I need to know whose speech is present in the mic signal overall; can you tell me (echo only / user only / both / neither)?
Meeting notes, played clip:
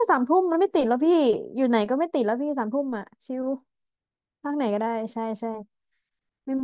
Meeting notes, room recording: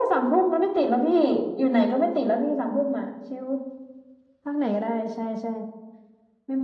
echo only